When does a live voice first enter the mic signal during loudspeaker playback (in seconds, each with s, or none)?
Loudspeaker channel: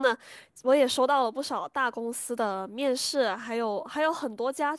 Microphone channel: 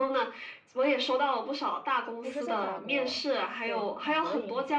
2.2 s